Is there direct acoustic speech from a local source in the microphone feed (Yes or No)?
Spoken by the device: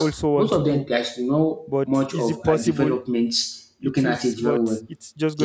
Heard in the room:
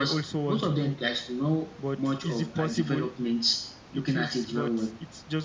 No